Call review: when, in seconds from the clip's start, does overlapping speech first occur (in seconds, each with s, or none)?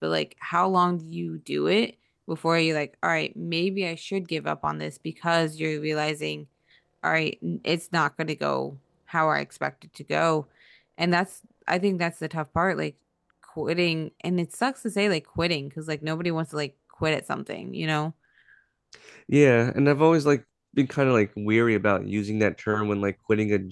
none